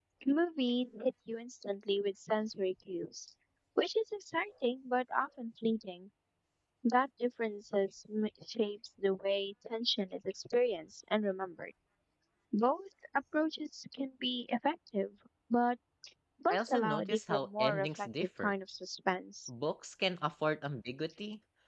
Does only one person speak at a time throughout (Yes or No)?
No